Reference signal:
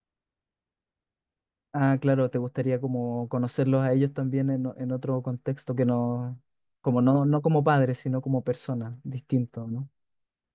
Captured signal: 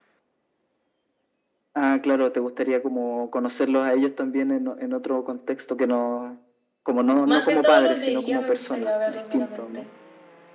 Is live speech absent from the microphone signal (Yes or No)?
No